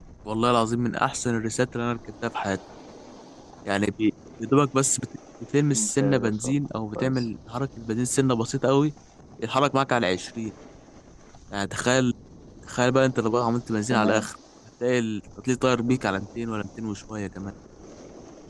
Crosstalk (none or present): present